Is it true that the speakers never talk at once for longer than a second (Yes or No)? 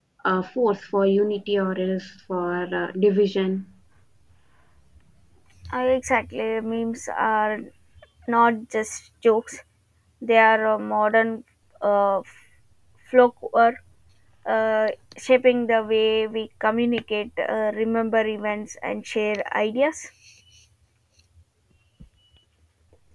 Yes